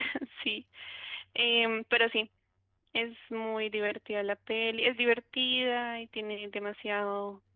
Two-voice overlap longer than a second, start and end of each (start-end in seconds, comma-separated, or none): none